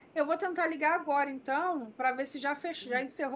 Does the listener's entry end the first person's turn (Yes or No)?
No